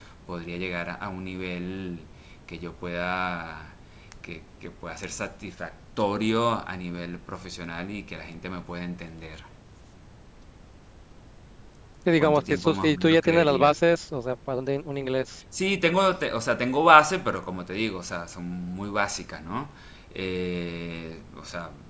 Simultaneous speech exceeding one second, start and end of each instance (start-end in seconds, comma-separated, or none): 12.1-13.8